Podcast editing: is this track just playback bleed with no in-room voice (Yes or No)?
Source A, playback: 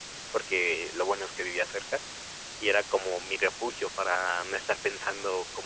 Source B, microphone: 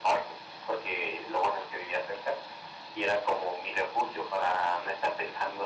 Yes